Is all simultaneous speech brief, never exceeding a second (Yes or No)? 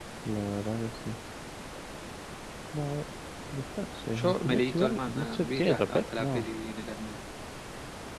No